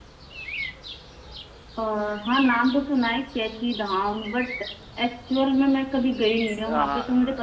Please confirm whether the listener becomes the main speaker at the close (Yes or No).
Yes